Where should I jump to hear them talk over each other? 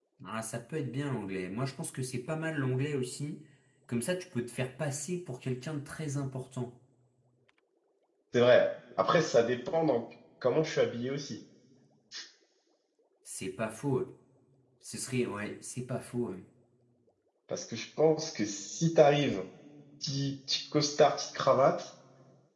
none

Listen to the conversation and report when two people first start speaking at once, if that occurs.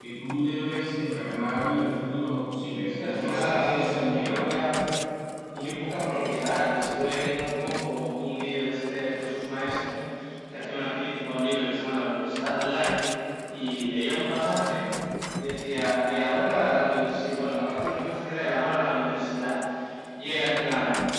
3.0 s

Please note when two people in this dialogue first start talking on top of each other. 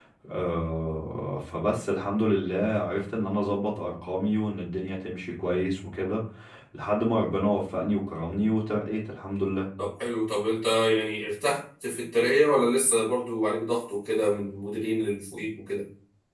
none

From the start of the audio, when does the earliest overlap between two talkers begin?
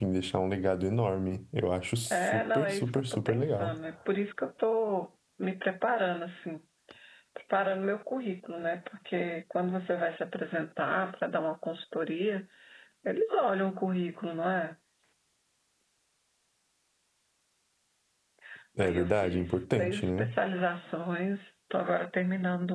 2.1 s

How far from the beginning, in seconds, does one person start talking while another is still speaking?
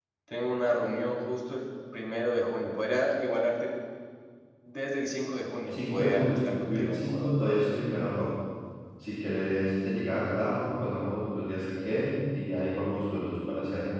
5.7 s

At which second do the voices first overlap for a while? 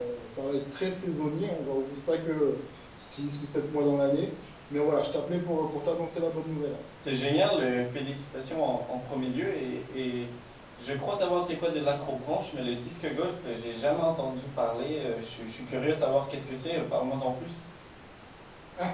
none

